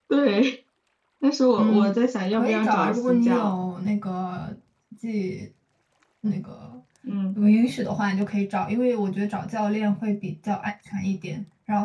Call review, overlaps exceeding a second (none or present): present